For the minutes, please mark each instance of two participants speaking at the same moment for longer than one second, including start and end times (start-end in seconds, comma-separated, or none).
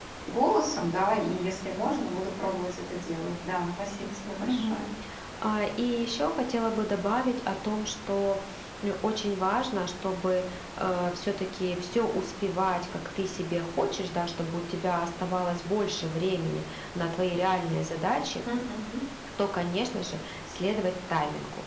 none